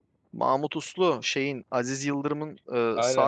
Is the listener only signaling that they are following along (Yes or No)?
No